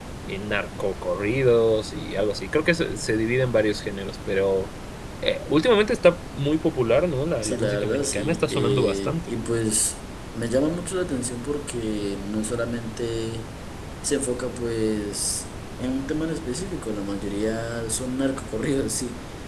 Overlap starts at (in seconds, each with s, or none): 7.4 s